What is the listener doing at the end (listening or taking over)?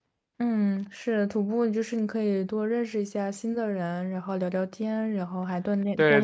taking over